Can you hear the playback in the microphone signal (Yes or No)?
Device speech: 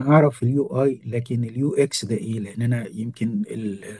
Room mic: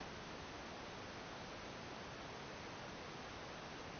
No